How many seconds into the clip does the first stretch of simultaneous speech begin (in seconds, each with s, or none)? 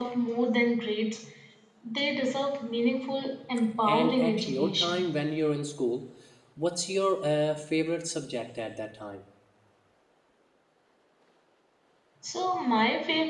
3.8 s